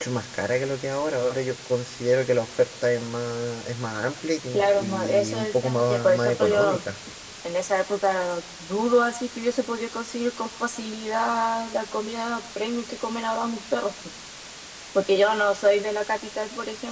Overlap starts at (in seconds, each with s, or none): 4.5 s